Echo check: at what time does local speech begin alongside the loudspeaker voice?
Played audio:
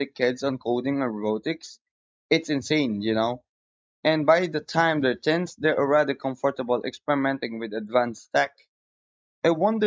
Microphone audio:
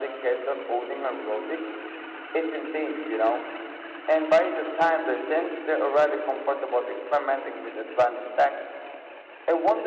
none

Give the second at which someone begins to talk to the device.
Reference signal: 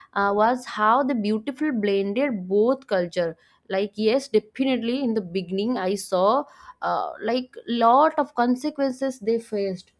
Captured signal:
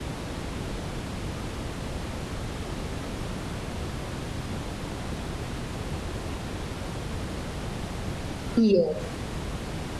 8.5 s

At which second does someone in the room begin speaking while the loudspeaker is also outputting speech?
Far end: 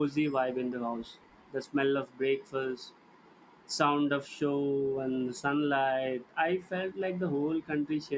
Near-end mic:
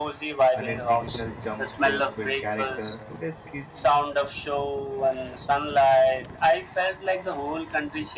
0.5 s

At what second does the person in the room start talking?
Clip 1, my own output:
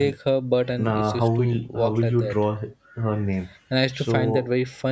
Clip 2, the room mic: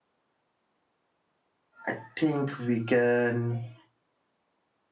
1.9 s

